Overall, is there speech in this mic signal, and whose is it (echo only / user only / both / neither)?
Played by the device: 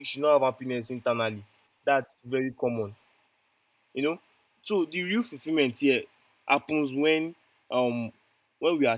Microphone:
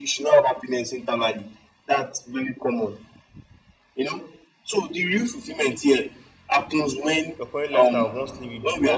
both